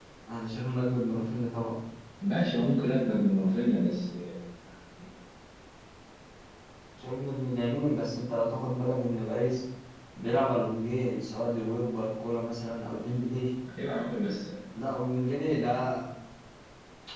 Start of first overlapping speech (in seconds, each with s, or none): none